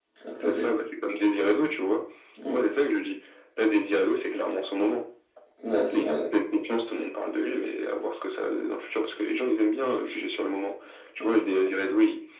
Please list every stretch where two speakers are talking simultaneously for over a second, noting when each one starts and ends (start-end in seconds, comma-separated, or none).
none